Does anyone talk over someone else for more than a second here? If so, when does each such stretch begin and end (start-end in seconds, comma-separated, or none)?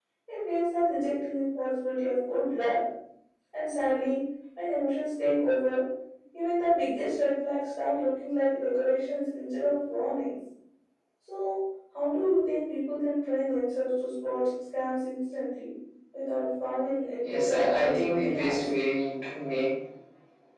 17.2-18.7